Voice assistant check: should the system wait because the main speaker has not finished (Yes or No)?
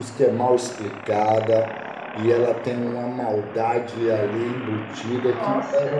Yes